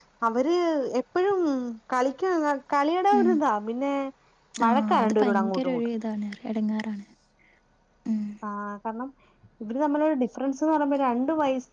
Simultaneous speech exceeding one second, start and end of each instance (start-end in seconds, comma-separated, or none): 4.7-5.9